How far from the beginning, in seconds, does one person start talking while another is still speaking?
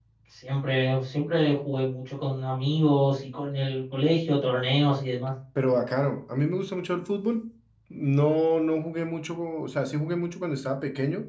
none

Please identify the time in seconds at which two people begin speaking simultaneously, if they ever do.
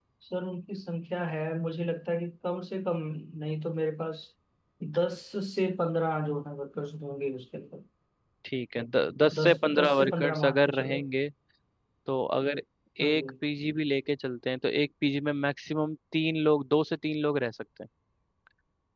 9.3 s

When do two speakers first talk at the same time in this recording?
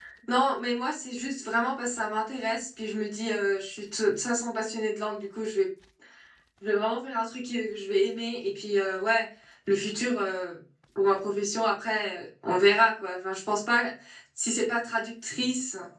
none

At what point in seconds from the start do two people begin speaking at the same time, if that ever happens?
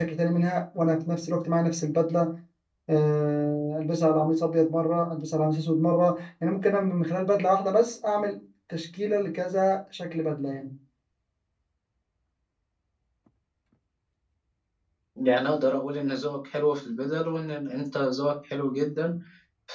none

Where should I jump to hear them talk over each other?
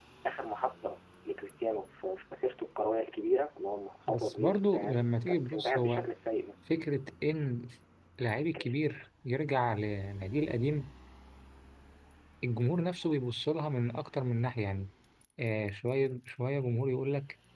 4.1 s

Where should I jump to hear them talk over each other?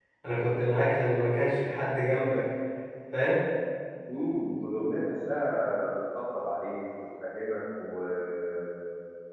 none

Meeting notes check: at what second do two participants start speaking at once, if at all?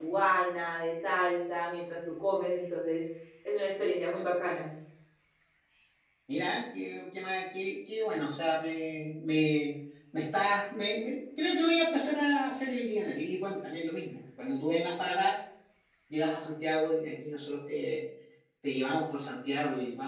none

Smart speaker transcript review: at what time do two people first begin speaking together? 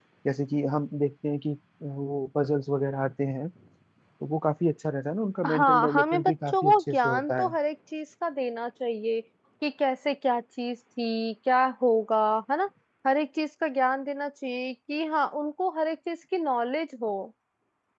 5.4 s

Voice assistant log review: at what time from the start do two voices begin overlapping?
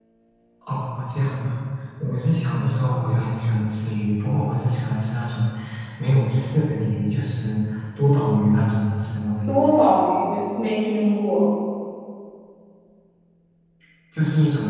none

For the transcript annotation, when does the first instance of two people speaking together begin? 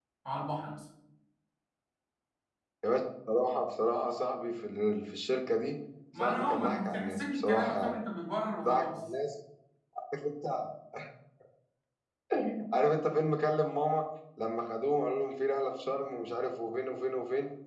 6.2 s

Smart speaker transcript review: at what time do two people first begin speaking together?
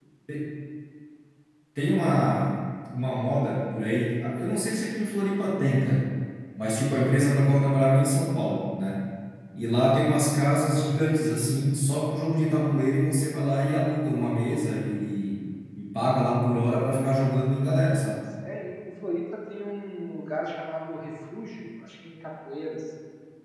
none

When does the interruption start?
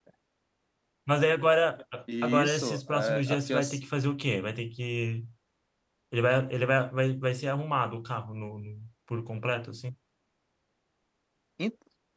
2.1 s

